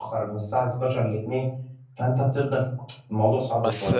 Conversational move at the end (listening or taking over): taking over